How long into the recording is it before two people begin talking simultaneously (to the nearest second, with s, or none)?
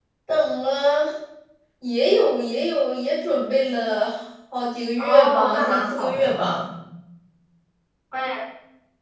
5 s